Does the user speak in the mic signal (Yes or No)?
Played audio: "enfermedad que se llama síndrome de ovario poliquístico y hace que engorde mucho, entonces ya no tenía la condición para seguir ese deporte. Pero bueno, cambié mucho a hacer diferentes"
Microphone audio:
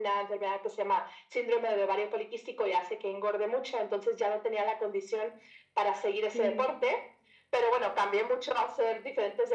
Yes